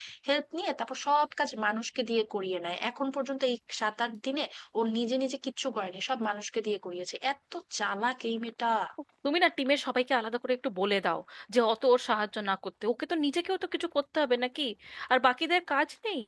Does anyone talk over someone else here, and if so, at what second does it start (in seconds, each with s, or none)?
none